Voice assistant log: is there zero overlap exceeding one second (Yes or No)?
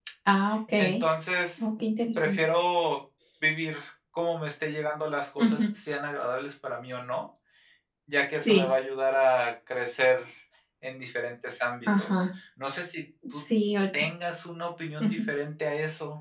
Yes